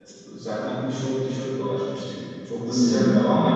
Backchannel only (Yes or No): Yes